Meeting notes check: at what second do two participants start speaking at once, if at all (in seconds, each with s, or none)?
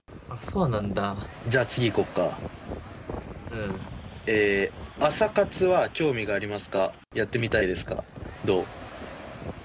none